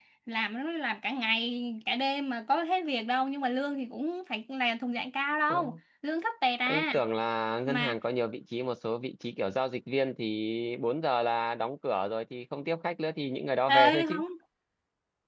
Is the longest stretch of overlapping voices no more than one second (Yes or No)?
Yes